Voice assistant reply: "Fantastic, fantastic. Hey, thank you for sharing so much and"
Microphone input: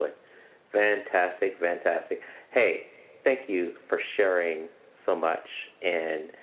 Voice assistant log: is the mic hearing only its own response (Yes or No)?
Yes